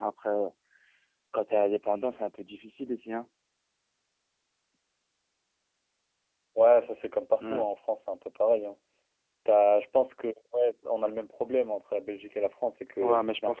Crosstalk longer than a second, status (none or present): none